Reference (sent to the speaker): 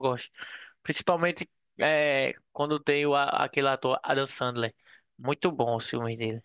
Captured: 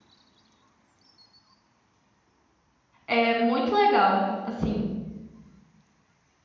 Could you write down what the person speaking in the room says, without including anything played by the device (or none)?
É muito legal, assim.